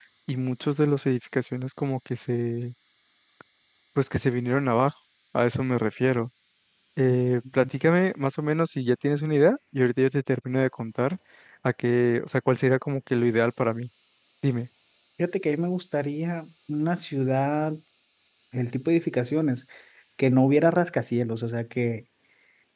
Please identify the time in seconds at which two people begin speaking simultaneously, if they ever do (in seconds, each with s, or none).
none